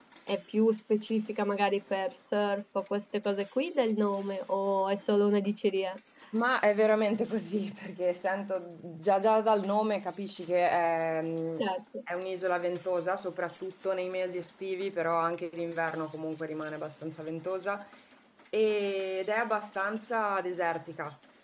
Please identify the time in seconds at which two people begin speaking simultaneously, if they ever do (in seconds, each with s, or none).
none